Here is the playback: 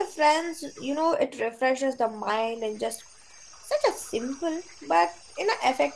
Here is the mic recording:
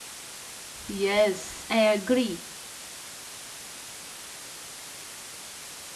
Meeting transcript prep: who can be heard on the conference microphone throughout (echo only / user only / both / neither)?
user only